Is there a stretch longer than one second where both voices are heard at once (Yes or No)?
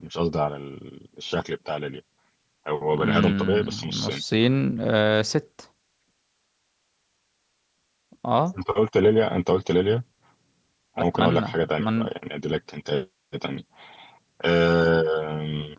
Yes